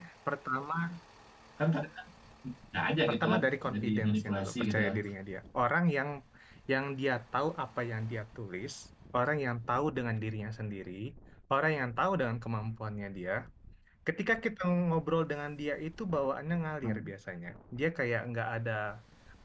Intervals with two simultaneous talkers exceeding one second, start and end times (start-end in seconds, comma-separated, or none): 3.1-4.9